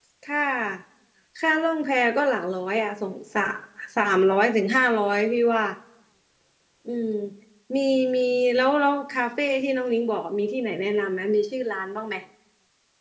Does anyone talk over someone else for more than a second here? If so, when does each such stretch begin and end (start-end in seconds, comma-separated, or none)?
none